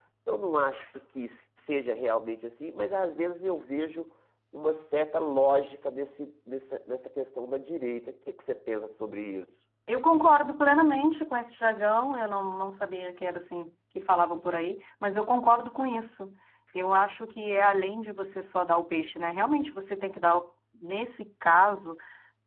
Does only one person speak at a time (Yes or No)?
Yes